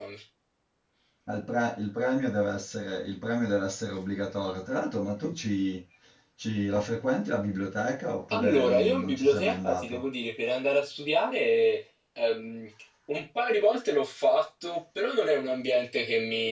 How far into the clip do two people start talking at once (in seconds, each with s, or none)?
8.3 s